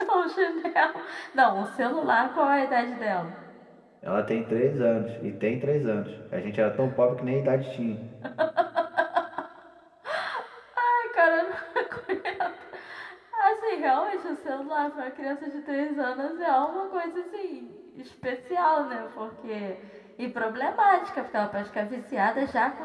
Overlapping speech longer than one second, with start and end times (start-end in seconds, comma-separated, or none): none